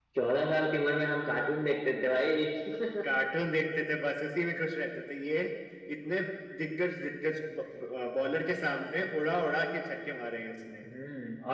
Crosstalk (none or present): none